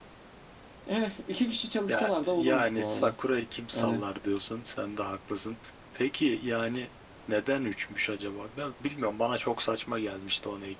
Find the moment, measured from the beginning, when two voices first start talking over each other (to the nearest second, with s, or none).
2 s